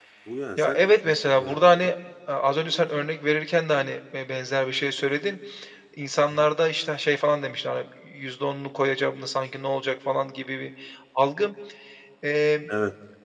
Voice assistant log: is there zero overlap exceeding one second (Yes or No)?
No